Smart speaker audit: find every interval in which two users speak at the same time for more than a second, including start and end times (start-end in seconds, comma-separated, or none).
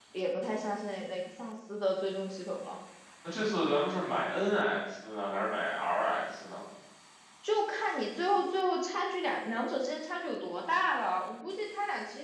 none